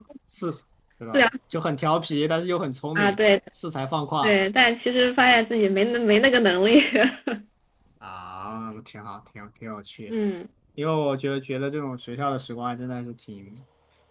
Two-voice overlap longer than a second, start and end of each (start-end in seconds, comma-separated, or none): none